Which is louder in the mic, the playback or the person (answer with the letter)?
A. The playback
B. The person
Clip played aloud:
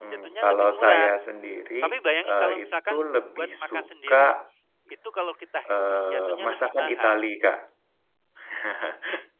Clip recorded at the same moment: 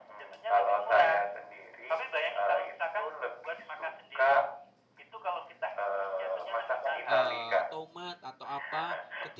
A